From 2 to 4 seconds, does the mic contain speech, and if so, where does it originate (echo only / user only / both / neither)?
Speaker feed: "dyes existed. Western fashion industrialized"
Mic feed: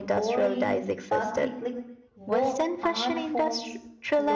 both